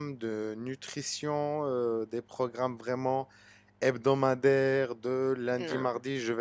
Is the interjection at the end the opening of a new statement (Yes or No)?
No